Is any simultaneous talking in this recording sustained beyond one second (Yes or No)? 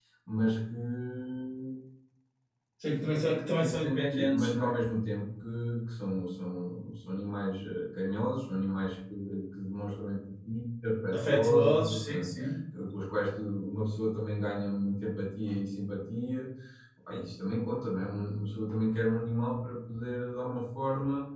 Yes